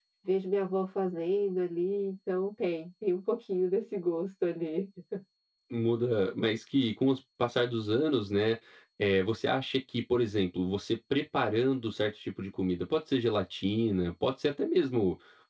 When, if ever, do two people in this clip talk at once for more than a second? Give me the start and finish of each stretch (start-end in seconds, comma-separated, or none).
none